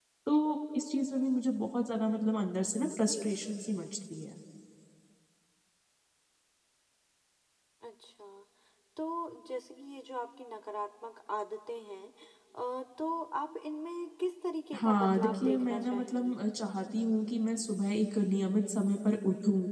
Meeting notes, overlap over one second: present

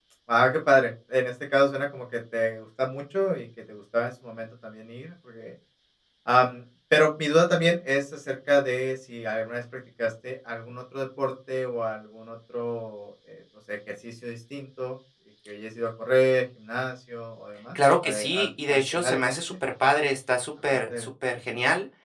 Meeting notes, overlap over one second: present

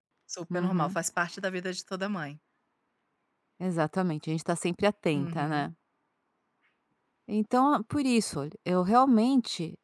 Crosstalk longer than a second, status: none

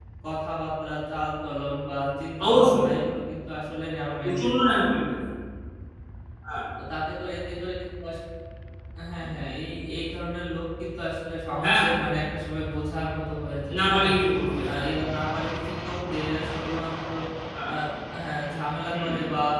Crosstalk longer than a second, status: none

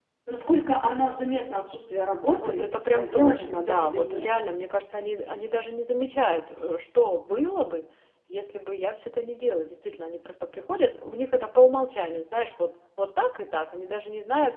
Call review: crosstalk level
present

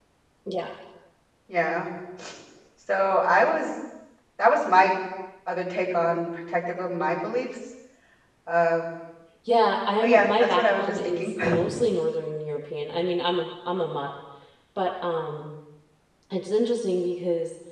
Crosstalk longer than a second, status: present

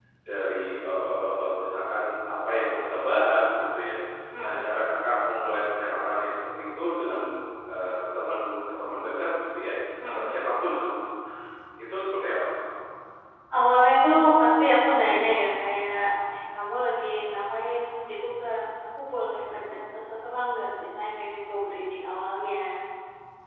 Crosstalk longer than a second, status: none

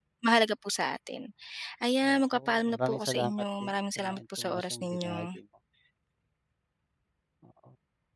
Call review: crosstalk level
present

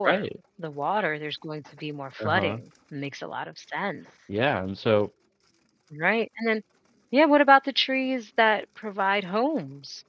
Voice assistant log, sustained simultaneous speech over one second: none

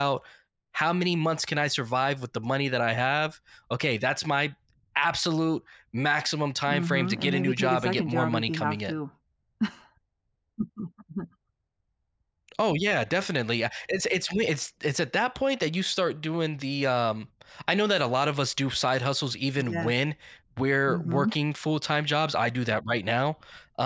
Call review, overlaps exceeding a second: present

